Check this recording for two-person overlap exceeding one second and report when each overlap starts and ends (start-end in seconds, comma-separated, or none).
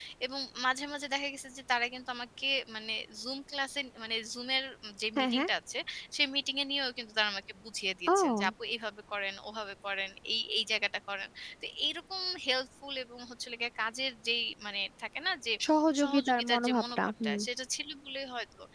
16.0-17.4